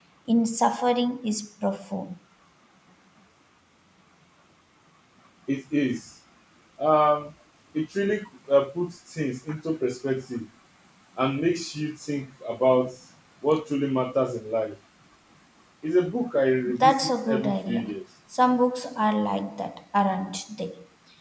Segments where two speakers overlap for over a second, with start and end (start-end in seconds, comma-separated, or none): 16.7-17.9